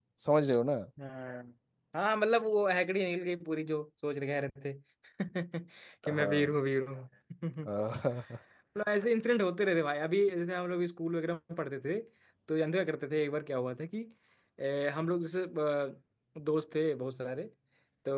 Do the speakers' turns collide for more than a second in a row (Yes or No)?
No